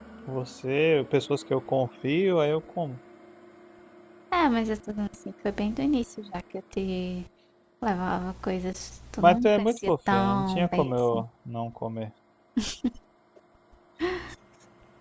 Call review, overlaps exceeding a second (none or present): present